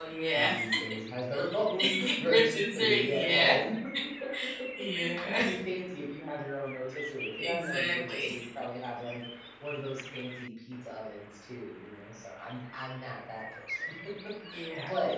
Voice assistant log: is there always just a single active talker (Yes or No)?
No